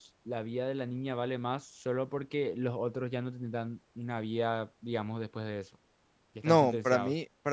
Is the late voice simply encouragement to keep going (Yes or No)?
No